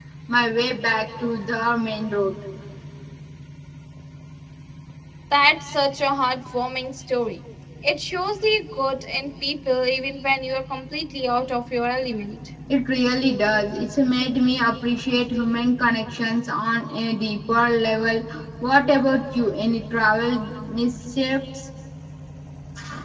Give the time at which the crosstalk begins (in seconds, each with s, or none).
none